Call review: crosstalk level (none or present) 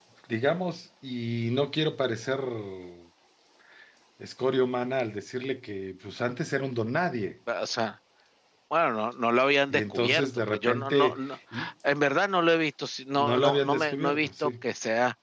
present